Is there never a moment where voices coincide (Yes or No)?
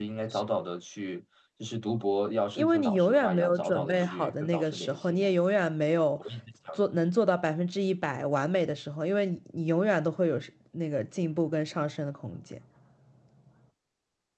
No